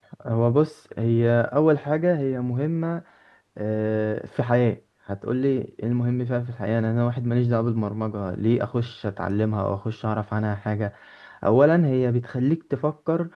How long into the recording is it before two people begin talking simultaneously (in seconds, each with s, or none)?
none